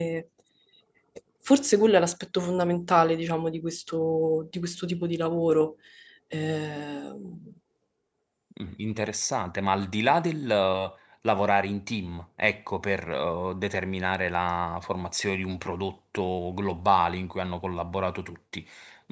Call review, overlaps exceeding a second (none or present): none